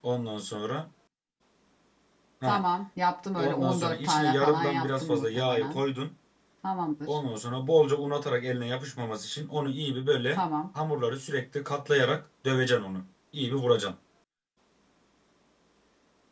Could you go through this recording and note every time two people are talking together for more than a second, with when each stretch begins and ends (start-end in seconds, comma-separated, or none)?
3.4-5.8